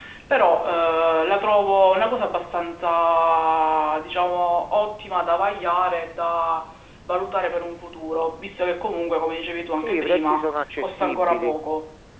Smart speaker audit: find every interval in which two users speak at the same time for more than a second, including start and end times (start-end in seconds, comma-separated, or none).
9.8-11.5